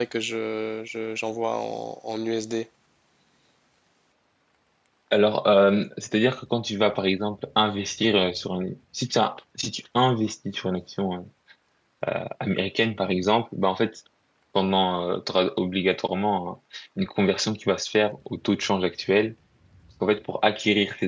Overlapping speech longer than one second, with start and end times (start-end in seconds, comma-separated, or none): none